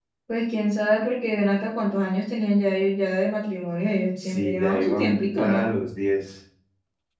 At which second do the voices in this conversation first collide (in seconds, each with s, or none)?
4.2 s